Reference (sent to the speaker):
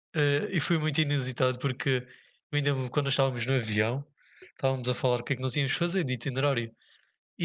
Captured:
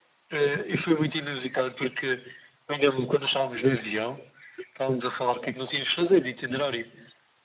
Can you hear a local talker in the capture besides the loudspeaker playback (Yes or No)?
No